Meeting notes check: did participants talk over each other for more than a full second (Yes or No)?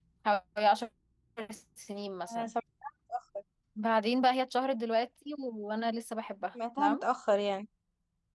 No